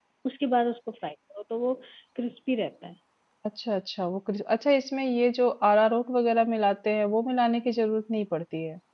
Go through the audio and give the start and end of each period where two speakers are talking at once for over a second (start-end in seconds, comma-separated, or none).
none